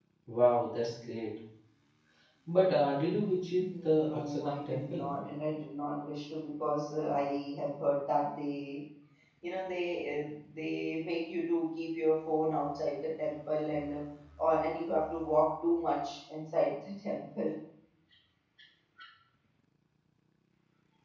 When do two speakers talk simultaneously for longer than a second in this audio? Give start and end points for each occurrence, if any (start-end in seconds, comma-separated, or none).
3.6-5.1